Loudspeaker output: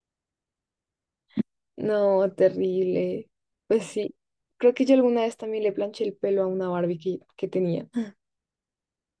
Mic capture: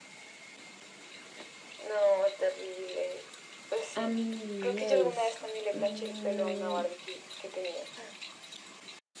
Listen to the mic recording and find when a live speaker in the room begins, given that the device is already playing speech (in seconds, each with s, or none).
4.0 s